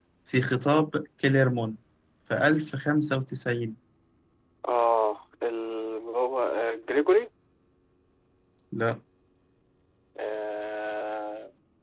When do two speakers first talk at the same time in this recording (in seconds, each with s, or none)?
none